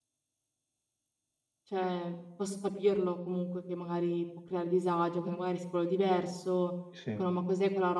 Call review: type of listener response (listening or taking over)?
listening